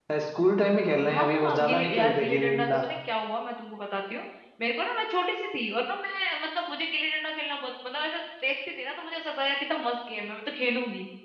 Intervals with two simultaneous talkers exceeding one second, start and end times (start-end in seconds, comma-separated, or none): 1.1-2.8